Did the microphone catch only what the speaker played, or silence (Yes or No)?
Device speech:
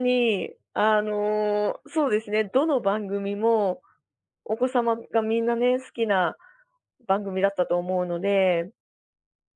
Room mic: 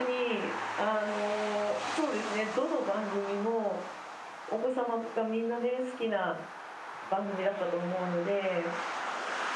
Yes